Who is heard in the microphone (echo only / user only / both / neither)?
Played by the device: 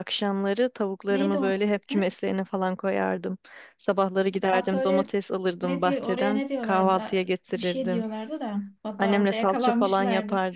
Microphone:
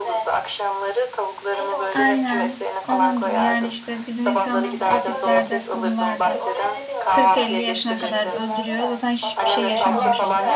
both